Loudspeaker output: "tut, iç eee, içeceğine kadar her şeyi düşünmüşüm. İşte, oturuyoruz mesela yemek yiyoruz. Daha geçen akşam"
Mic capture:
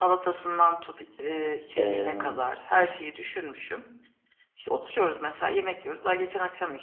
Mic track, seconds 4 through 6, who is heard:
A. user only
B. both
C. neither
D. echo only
D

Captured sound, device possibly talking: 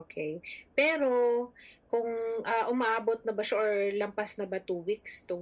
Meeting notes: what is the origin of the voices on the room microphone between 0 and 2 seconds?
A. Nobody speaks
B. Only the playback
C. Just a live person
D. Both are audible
B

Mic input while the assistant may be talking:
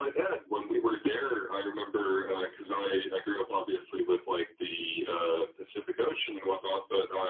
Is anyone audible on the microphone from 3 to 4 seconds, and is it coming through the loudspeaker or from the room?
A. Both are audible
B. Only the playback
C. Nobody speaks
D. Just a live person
B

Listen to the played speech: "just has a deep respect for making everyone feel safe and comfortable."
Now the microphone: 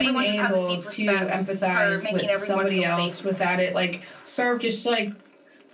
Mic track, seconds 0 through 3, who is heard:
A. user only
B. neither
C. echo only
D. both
D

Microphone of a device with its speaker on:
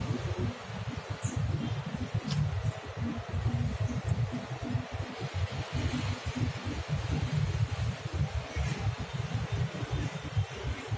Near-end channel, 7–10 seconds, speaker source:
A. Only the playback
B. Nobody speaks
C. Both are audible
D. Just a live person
B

